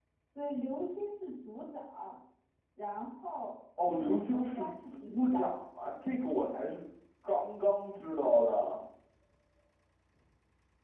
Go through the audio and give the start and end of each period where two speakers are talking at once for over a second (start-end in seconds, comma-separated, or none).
3.8-5.6